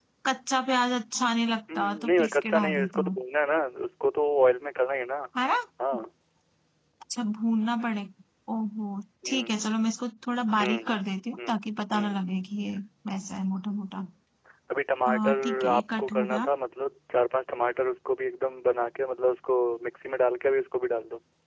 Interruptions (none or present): present